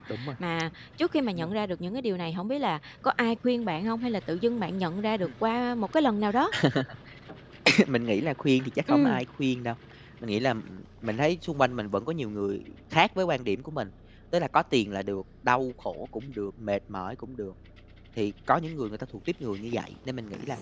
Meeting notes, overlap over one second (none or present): none